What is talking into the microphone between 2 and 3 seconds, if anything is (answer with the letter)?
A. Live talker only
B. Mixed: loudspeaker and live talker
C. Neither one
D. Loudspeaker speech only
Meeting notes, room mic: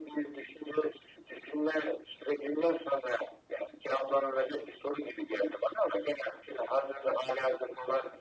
D